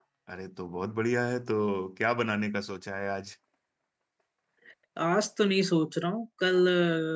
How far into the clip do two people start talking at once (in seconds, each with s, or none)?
none